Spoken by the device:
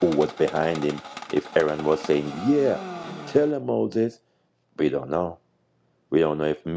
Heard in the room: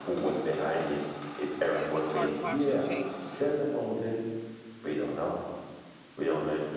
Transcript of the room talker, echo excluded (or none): Yeah, his heart posture changed.